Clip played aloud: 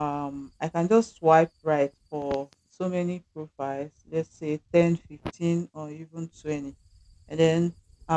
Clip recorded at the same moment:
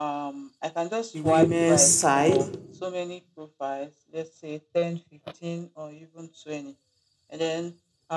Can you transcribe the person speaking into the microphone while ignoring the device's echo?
the women's side

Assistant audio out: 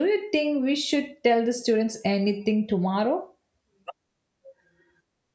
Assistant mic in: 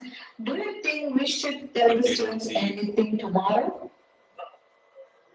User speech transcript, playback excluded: But they don't see

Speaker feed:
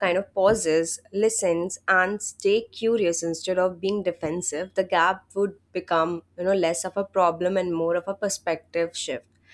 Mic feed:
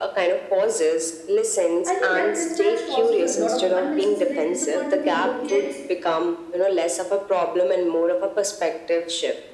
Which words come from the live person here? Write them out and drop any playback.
I think that mismatch causes a lot of unnecessary disappointments on both the ends.

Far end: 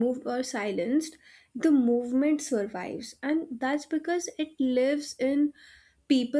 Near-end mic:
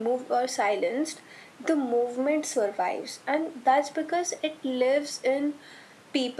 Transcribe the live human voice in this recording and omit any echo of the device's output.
none

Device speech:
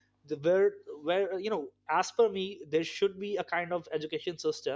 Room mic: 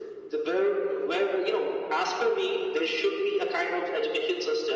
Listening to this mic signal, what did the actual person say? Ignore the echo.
none

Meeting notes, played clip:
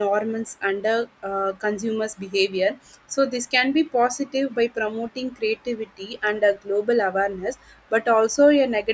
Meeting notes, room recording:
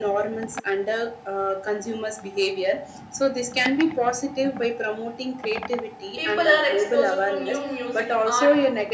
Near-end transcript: people are exposed to new music art

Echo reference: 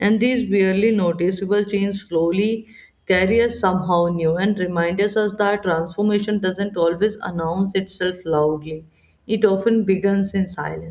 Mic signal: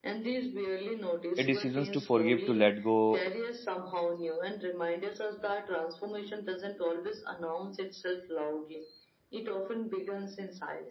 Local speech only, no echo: A decisions to forgive, to let go,

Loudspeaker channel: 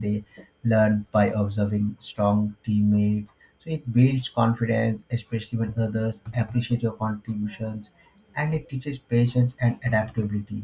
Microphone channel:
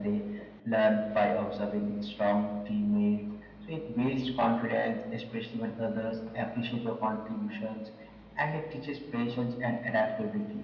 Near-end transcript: none

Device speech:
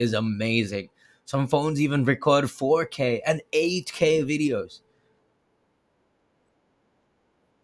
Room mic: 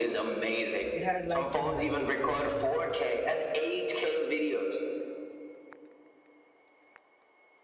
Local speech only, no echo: It had like 2 megapixel camera only.

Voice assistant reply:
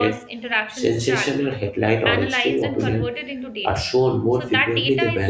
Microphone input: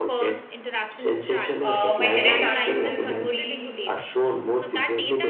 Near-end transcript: uh, my direct answer to this would be

